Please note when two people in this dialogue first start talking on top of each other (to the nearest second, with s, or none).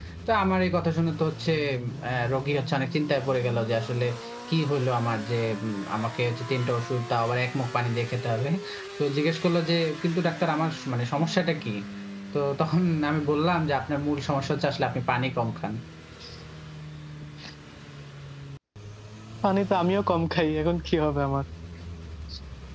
none